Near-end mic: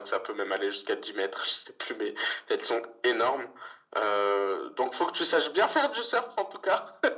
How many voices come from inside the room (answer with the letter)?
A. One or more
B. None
B